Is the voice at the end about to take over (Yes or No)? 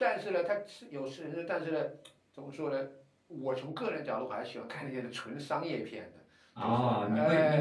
Yes